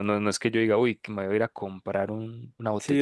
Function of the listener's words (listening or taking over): taking over